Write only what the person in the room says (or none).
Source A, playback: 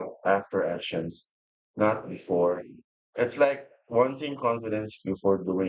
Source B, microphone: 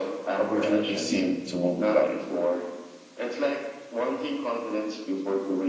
opportunities seem to multiply.